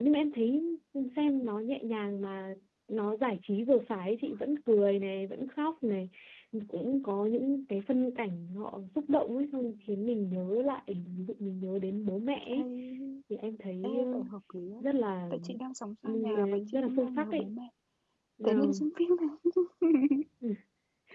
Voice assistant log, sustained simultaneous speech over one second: present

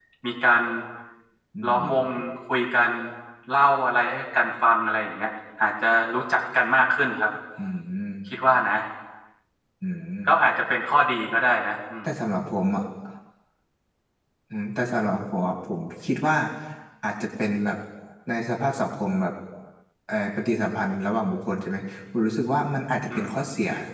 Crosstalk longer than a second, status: none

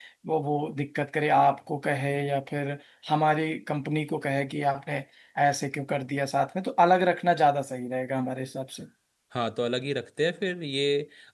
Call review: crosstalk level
none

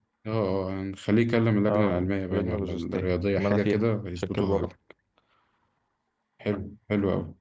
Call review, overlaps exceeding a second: present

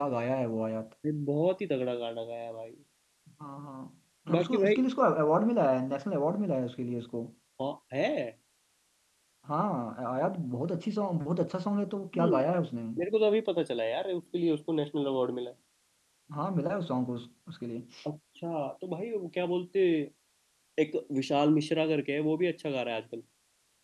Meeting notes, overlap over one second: none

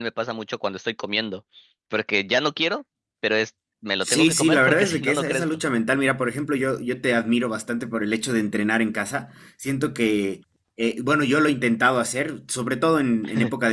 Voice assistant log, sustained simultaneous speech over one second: present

